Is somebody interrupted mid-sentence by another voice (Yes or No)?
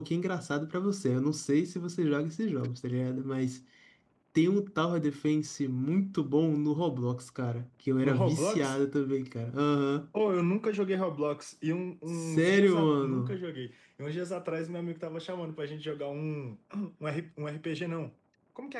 Yes